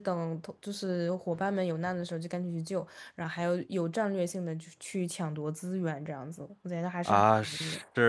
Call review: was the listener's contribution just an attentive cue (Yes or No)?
No